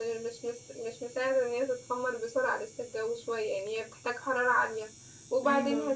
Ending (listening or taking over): listening